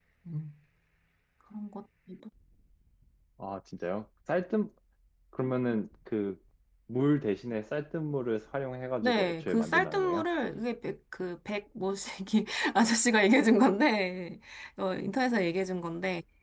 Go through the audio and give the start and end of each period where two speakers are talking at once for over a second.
9.0-10.3

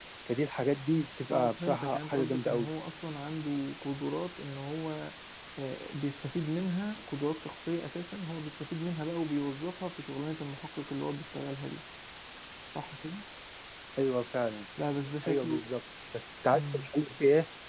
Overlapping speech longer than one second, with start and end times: 1.3-2.7

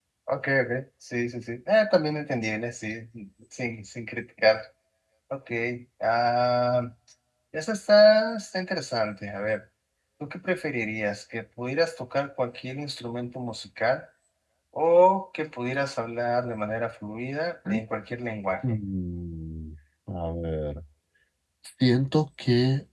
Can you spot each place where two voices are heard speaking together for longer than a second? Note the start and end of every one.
none

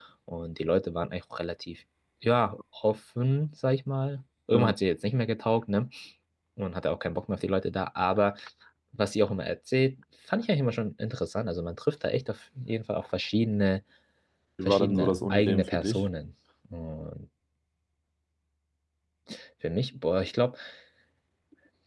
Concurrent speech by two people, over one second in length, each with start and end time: 14.7-16.1

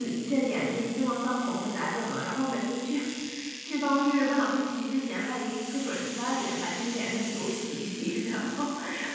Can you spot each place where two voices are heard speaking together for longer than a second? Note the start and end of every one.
none

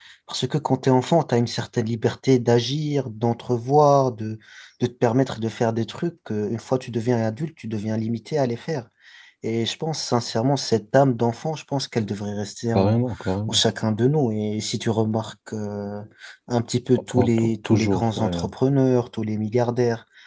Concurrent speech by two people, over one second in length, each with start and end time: 17.1-18.4

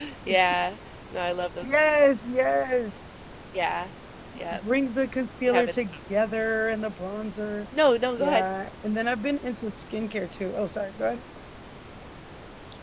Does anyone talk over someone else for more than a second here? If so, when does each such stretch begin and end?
none

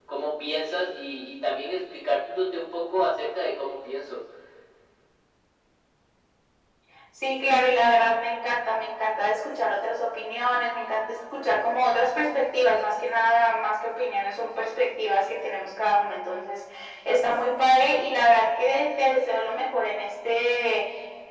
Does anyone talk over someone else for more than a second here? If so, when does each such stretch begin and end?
none

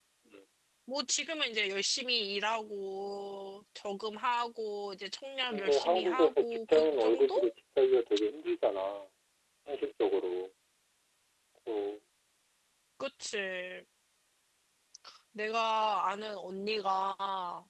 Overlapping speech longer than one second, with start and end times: 5.5-7.3

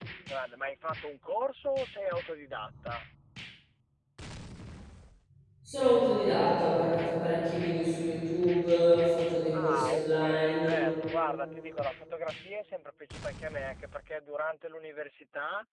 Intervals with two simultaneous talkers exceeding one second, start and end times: 9.5-10.8

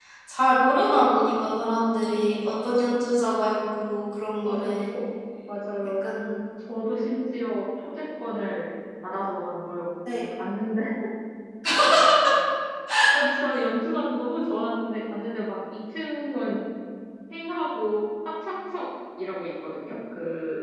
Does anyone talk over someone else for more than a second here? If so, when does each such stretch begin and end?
none

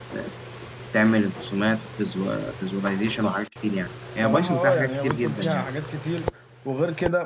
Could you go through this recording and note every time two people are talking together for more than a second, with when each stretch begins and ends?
4.2-5.6

